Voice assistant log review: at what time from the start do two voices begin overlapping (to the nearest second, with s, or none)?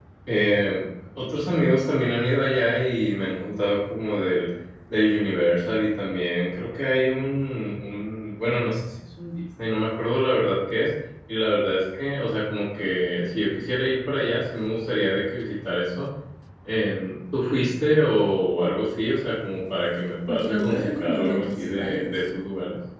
20 s